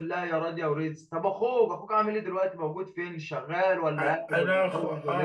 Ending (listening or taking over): taking over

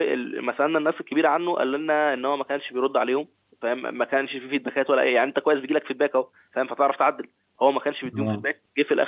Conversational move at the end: listening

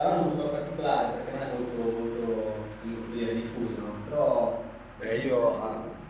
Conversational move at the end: taking over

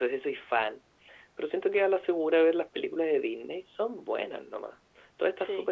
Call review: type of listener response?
listening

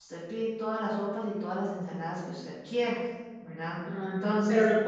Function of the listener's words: taking over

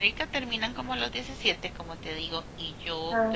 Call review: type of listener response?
listening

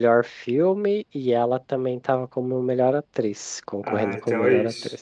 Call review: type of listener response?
taking over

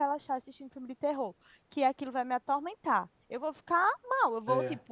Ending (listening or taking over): listening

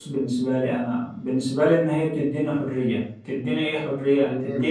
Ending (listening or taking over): listening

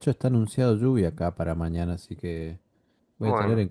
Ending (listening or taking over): listening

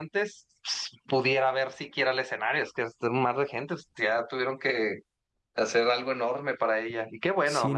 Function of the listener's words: taking over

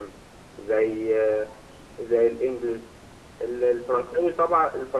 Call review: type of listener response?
listening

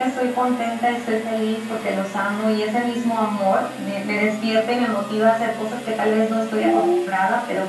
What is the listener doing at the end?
listening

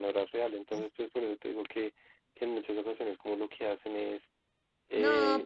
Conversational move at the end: taking over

